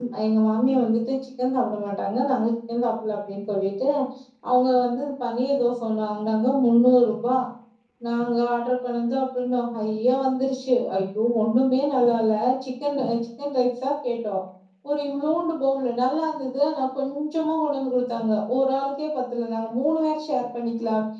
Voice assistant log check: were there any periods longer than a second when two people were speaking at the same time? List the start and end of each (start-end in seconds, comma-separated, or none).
none